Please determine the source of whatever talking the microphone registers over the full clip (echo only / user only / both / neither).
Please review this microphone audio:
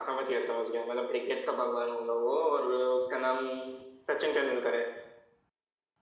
echo only